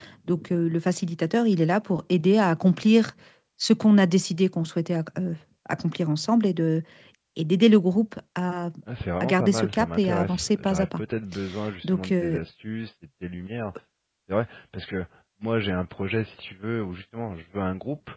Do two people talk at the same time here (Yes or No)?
Yes